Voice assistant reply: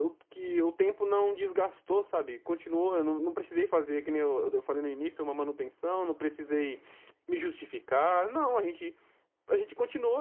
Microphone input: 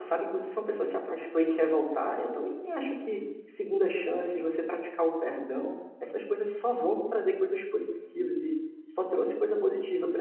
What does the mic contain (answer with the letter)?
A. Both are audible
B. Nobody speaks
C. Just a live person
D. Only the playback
C